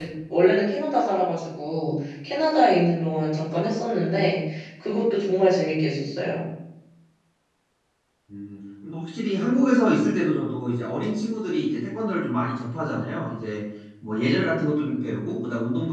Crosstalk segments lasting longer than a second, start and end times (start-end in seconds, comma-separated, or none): none